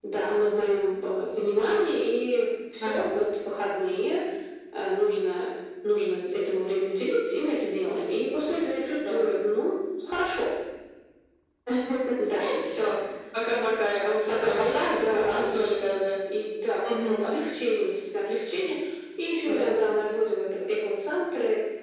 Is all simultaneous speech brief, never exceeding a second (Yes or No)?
No